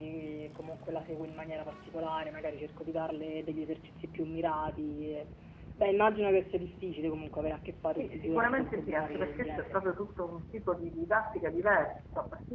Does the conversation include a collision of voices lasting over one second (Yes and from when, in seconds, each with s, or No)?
Yes, from 8.0 s